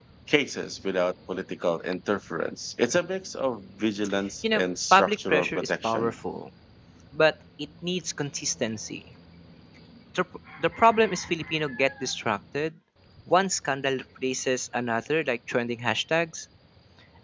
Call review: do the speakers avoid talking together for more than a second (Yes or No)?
No